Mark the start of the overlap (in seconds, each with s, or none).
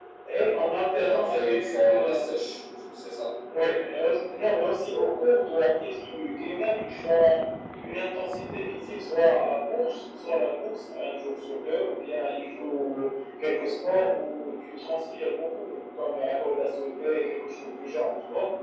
1.0 s